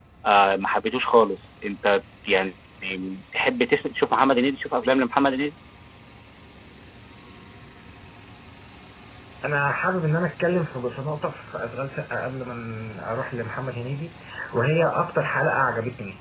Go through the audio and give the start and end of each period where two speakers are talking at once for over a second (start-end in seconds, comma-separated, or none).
none